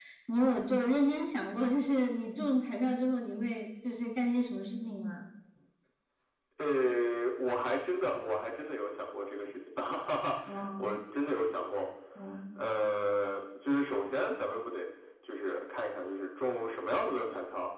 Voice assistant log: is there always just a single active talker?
Yes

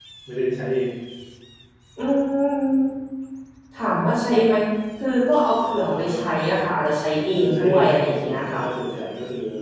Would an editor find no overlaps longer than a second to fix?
No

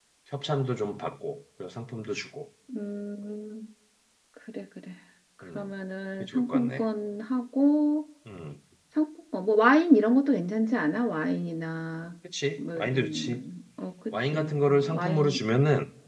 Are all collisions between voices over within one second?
No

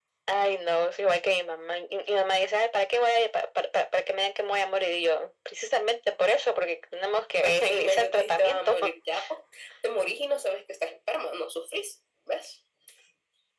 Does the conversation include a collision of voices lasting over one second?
Yes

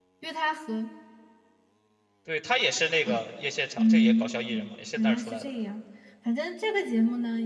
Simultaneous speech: Yes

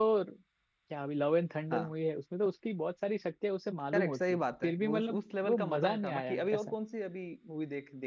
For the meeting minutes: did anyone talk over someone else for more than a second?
Yes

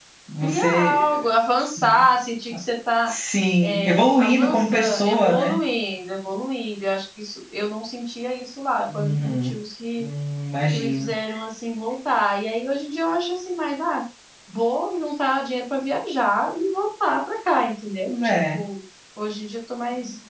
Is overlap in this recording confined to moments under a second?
No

